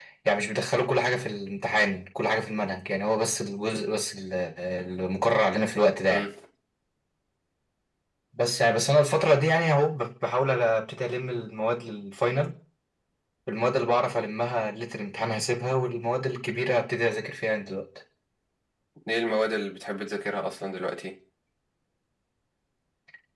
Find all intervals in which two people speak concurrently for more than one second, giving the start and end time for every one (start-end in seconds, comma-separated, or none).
none